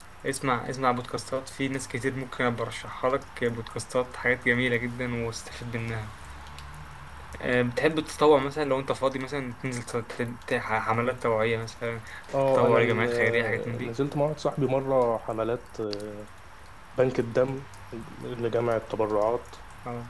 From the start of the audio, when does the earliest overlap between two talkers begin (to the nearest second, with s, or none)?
12 s